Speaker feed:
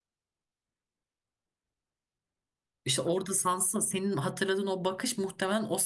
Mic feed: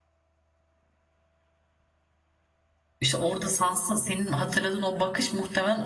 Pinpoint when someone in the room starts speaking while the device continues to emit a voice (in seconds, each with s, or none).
none